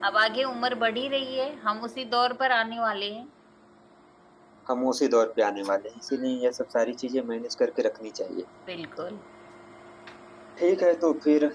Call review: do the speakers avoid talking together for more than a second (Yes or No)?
Yes